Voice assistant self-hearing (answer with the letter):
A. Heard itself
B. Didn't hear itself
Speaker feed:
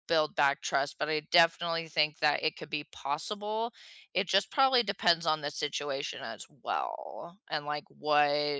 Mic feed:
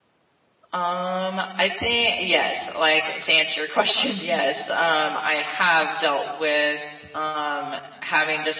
B